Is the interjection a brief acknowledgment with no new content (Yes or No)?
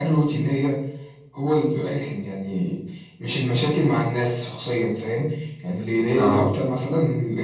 Yes